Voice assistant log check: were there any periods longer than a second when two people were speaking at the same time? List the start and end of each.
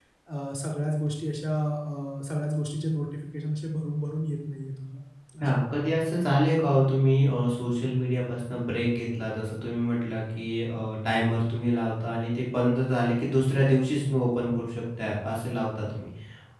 none

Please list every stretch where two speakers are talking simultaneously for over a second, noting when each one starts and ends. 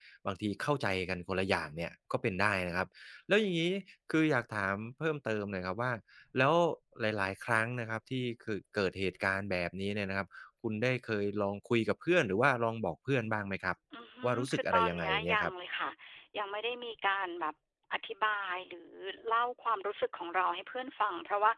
14.2-15.5

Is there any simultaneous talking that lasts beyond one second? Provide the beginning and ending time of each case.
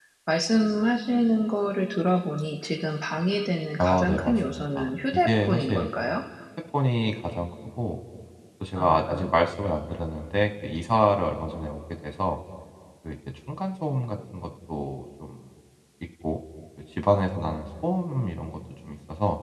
3.8-5.9

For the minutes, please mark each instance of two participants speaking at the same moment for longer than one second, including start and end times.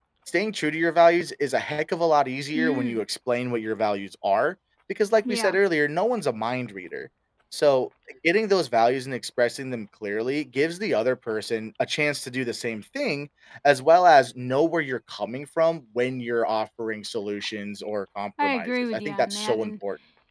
18.4-19.7

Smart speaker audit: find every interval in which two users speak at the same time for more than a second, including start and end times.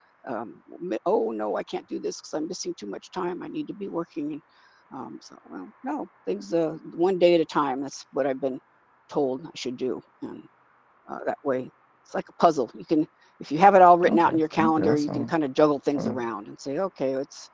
14.1-15.3

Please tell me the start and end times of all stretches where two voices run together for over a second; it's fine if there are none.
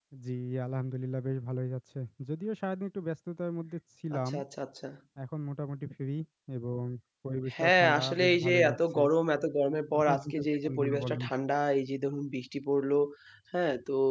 7.6-9.0, 10.0-11.2

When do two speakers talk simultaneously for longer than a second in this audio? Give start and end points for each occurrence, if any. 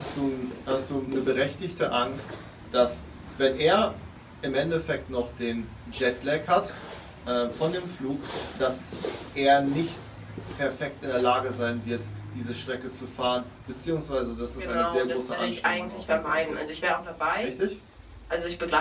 14.6-16.6

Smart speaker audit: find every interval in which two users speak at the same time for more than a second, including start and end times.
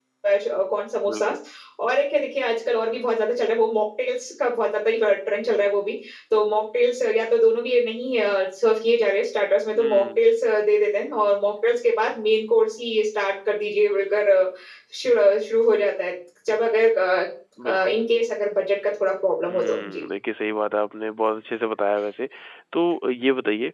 none

